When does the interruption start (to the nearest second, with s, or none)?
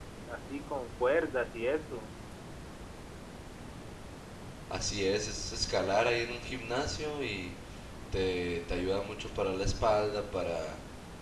none